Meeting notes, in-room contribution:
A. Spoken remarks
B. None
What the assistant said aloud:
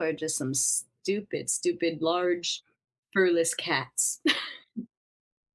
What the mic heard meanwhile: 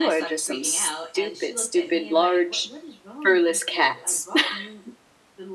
A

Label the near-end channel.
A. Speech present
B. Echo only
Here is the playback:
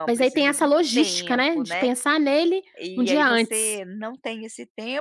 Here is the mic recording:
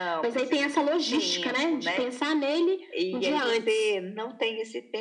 B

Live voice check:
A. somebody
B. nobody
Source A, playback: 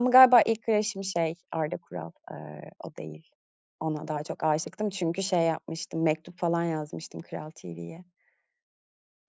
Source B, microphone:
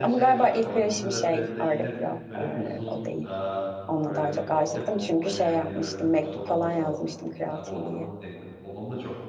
A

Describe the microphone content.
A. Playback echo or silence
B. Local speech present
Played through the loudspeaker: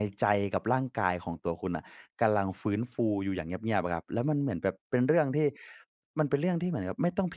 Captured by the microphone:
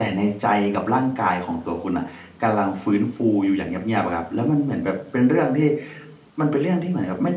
A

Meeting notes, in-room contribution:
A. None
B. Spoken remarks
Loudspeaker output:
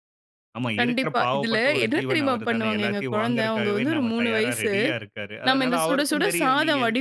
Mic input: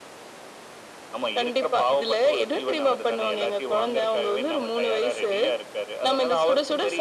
A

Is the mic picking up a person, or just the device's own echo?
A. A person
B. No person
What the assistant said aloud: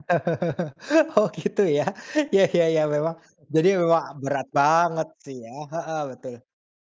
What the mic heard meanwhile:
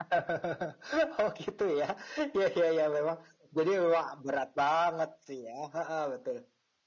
B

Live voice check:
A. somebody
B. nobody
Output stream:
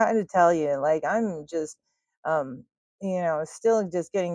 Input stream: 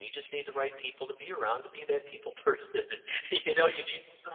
A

